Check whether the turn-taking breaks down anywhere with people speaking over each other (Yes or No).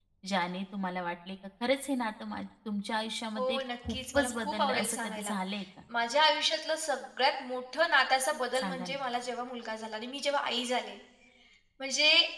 Yes